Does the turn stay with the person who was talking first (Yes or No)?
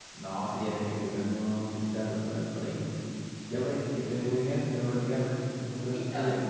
No